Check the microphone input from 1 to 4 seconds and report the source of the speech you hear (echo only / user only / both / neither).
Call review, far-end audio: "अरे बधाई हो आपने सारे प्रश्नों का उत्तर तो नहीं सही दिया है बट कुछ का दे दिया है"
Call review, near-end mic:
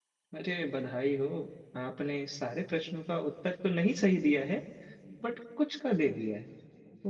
echo only